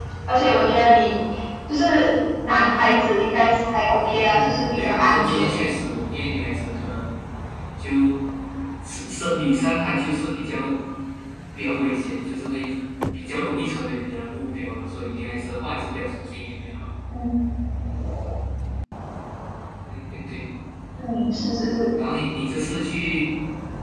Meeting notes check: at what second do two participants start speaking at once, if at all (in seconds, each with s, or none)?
4.3 s